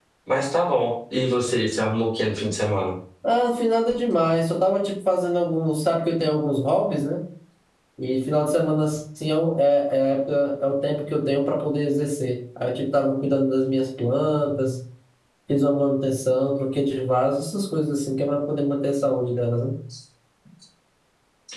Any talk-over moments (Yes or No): No